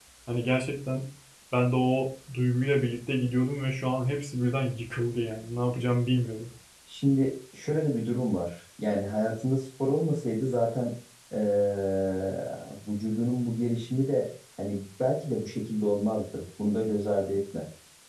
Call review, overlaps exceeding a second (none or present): none